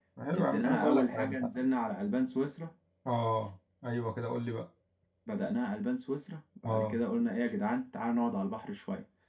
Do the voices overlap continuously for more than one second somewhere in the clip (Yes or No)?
Yes